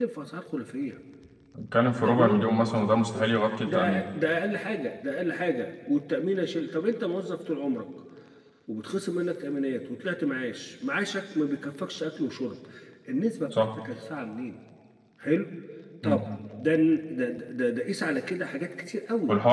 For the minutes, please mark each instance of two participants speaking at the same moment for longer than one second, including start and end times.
none

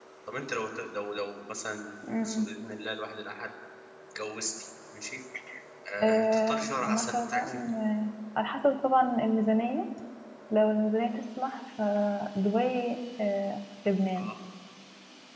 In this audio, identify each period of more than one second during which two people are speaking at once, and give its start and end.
6.0-7.6

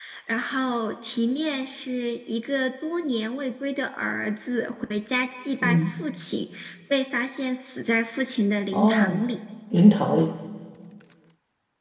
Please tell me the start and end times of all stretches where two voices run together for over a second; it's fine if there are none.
none

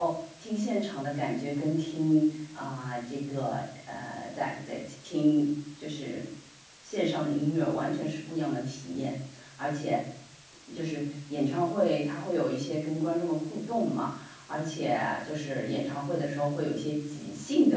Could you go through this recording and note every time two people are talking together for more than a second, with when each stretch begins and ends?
none

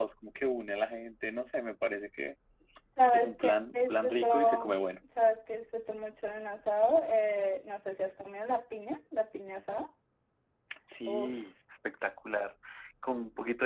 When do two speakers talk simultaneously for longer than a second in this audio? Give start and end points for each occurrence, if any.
3.1-4.8

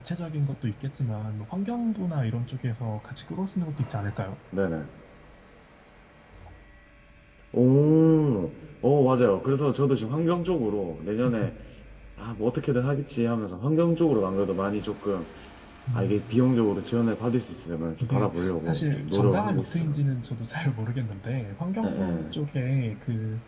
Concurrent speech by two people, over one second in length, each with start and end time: 18.0-20.0

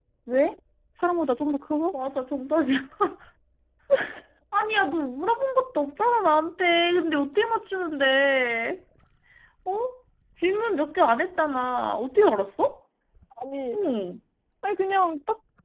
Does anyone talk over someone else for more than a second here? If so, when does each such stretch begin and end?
none

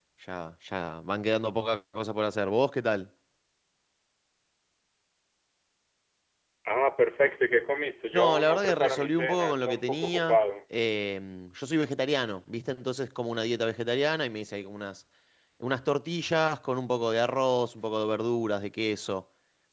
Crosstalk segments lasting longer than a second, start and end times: 8.1-10.4

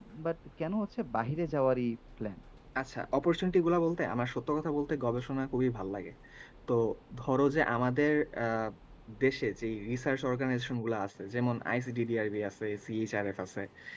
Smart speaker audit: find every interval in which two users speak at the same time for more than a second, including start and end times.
none

